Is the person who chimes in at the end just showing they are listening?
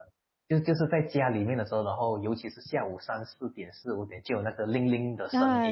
No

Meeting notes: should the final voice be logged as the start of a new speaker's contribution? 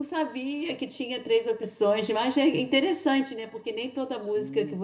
No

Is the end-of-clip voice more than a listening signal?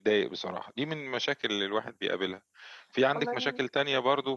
No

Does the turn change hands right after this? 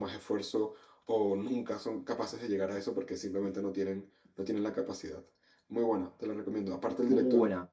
No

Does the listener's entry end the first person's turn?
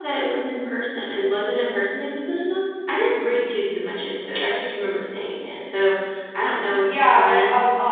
Yes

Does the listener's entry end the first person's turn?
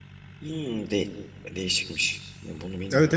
Yes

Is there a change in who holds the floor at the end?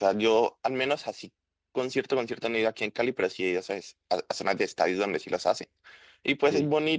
No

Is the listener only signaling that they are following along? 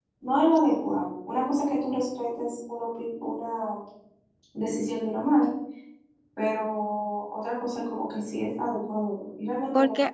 No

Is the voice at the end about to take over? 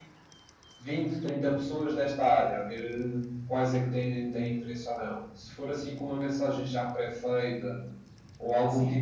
No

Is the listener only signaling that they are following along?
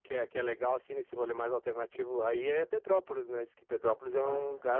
No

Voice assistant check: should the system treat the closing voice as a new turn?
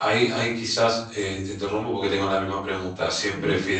No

